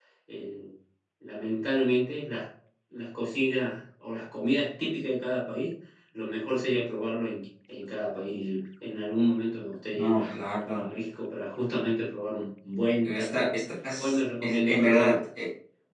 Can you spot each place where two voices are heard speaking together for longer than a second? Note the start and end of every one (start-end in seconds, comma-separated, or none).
14.0-15.2